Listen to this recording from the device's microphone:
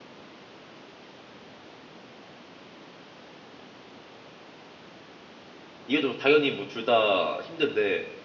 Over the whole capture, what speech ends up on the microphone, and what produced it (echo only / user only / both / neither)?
user only